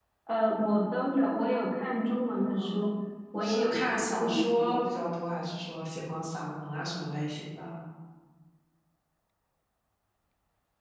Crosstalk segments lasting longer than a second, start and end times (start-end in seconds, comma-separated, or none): 3.4-4.9